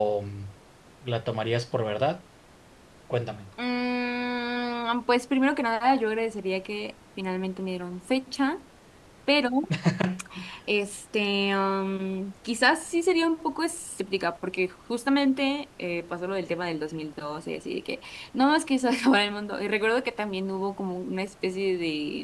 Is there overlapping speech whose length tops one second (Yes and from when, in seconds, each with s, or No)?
No